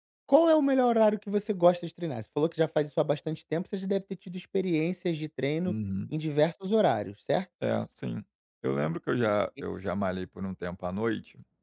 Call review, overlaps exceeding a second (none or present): none